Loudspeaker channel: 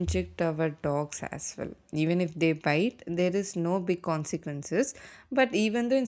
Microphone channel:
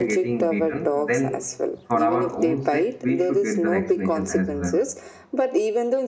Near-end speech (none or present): present